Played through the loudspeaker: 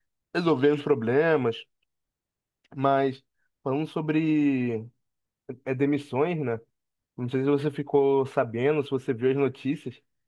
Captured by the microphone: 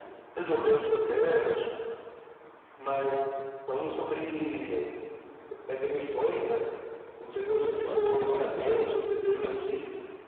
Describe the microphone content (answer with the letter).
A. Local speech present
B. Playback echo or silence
A